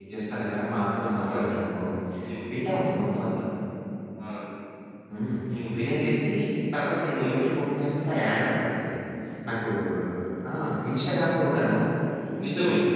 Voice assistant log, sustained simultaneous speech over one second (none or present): none